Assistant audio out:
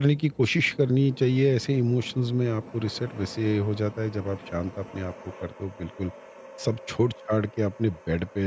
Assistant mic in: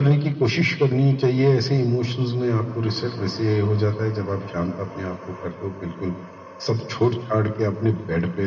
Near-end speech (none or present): none